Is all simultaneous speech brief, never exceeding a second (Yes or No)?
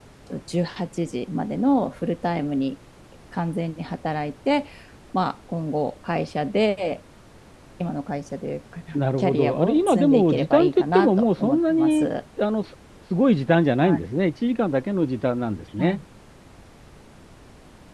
No